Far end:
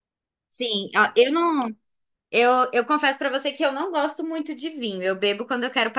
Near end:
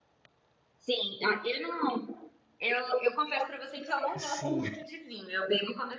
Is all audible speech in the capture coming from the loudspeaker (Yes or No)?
No